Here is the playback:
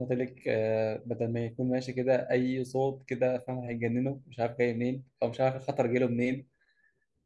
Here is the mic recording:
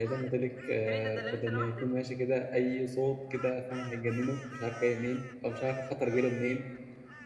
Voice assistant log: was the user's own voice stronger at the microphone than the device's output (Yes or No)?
No